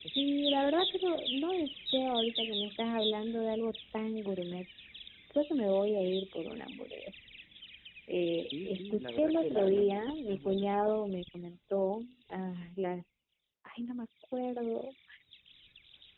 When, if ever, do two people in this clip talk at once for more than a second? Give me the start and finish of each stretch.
8.4-10.7

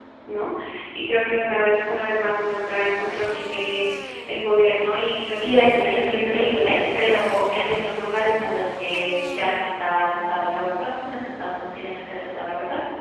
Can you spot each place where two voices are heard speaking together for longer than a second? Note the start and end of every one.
5.4-7.2

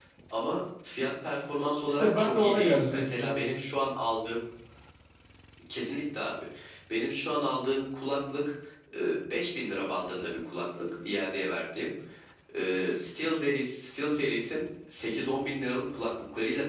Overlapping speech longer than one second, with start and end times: 1.9-3.5

